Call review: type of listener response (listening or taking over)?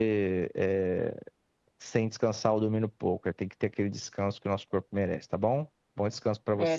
taking over